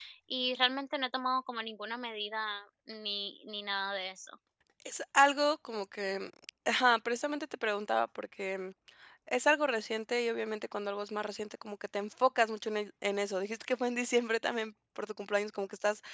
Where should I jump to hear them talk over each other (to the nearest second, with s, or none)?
none